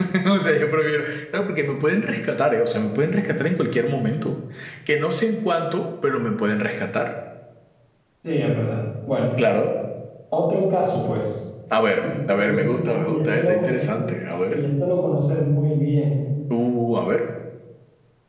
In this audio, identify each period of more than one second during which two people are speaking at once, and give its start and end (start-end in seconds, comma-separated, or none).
12.3-14.1